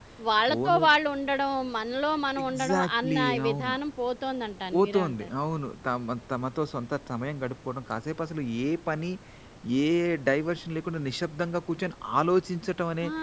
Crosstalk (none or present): present